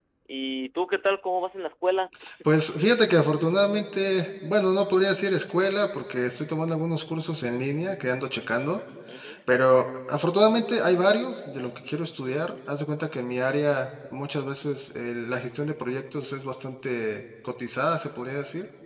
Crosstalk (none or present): none